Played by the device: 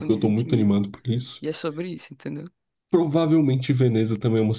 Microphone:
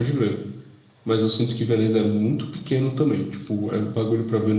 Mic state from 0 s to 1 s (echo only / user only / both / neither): user only